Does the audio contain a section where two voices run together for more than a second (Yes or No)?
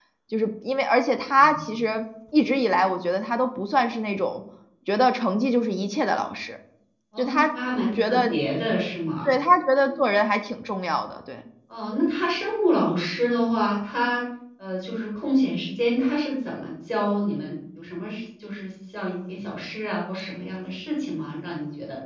No